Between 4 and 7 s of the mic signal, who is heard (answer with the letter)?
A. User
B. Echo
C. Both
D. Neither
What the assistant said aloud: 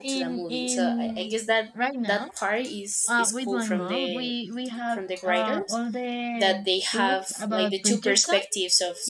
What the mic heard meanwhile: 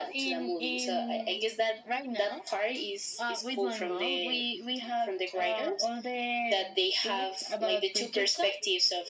B